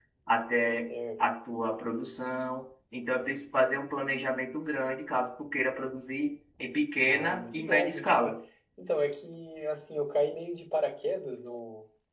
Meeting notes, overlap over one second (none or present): present